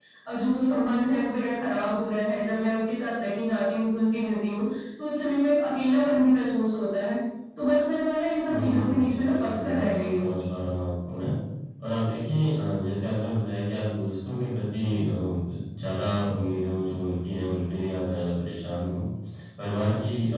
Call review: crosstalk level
present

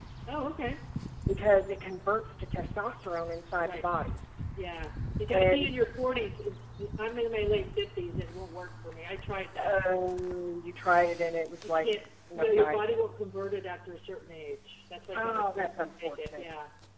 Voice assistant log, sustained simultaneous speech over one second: present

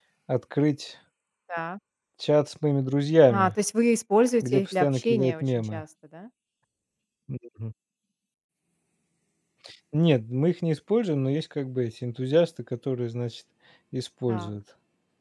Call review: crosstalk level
present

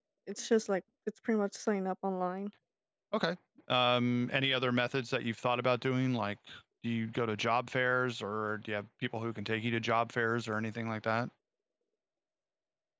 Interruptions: none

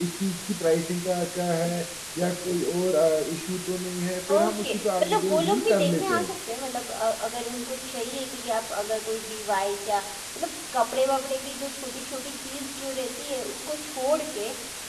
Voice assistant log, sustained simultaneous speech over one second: present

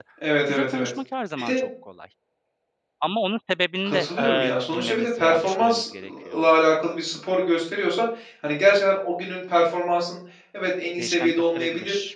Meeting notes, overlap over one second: present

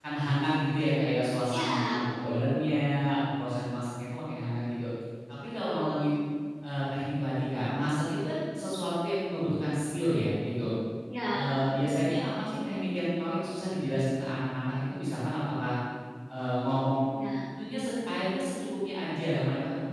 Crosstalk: present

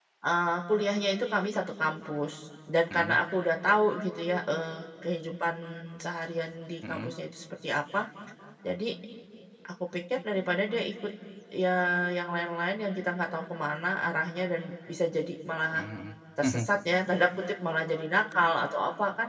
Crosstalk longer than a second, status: none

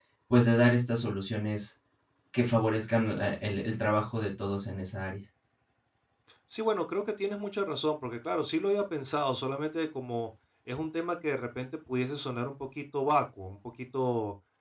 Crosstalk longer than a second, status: none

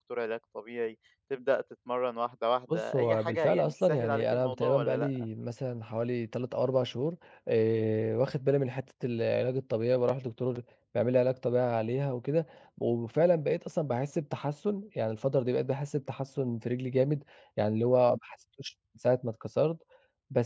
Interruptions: present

